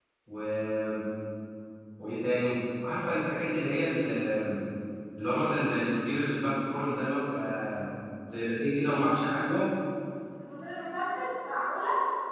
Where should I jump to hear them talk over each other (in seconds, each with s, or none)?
none